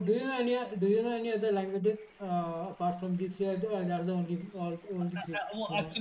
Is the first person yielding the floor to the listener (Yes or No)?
Yes